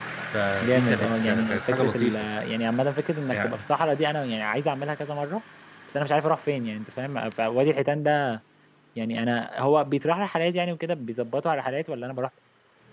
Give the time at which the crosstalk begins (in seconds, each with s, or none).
0.6 s